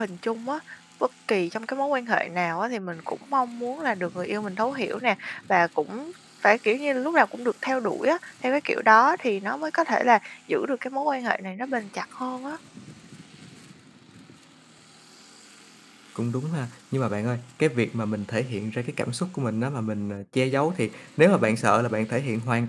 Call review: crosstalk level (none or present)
none